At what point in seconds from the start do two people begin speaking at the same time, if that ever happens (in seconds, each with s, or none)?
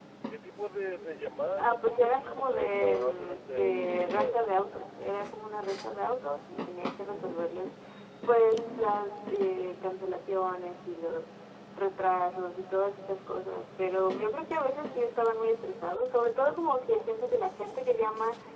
1.6 s